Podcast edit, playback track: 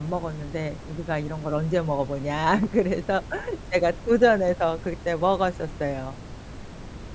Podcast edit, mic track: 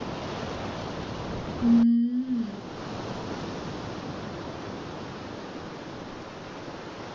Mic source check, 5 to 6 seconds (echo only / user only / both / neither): neither